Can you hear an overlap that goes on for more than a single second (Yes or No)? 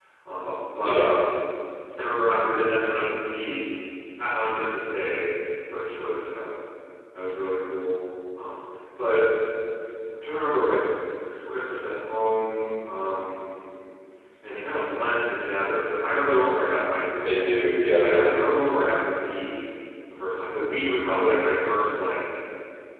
No